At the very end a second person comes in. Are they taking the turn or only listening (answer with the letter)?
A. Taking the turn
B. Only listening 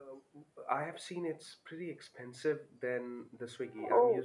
B